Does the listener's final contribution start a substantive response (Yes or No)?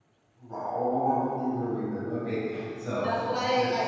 Yes